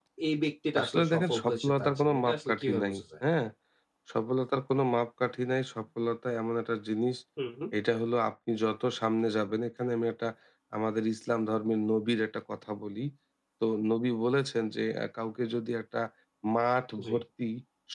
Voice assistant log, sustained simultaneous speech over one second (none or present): present